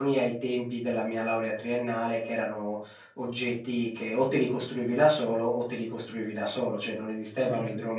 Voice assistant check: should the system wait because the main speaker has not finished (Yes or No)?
Yes